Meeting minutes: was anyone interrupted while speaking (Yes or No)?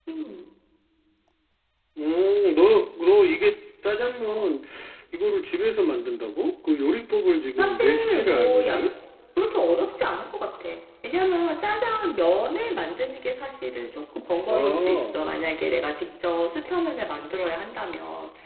Yes